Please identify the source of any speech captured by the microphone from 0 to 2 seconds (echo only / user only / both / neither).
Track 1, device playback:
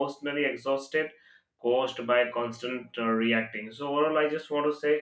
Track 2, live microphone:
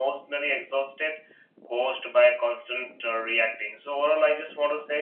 echo only